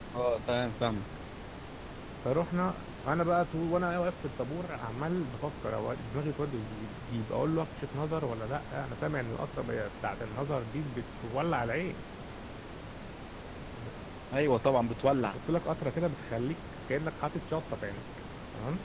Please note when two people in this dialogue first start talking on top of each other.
none

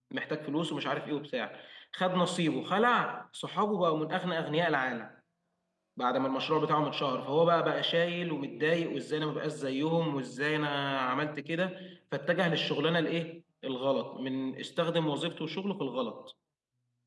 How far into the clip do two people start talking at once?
none

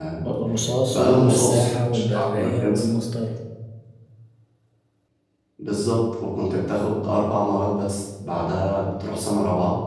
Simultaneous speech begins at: 0.9 s

